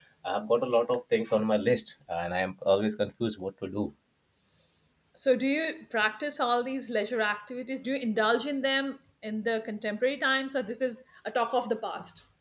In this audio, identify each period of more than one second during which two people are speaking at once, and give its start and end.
none

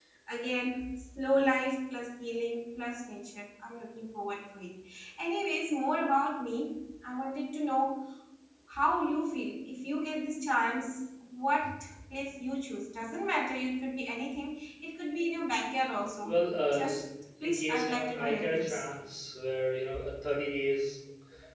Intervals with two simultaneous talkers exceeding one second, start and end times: 17.4-18.9

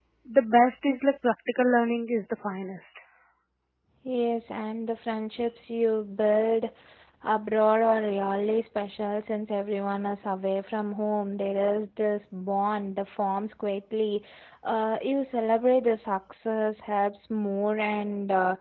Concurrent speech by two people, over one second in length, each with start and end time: none

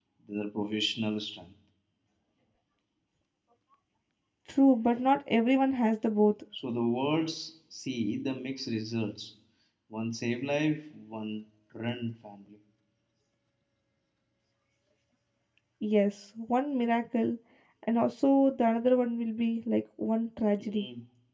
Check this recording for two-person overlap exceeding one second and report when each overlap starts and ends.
none

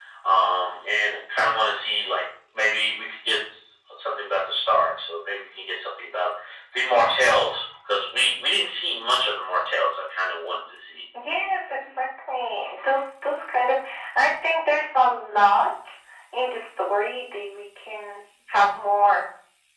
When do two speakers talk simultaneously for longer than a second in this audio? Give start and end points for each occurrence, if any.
none

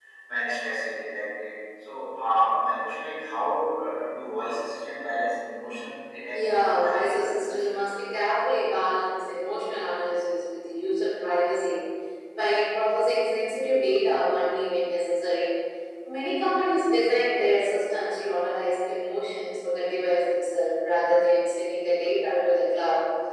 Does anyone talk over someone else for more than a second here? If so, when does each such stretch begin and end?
6.3-7.8

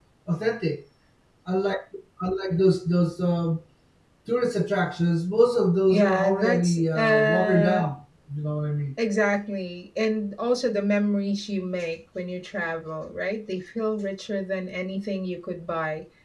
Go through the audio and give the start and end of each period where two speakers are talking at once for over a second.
5.9-7.9

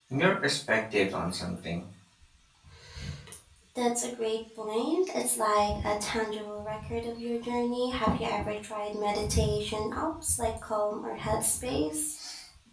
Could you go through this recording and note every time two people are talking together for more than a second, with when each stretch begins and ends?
none

